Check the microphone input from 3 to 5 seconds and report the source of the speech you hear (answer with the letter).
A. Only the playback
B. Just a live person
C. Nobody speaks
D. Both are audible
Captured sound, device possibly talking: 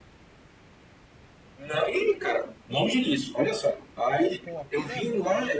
D